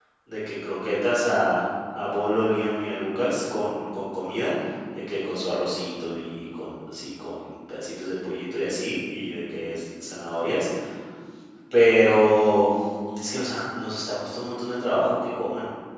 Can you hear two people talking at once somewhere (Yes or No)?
No